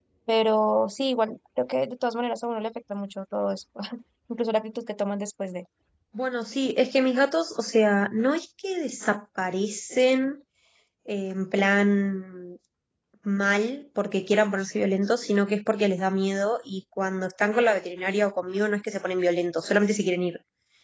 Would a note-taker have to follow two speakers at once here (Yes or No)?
No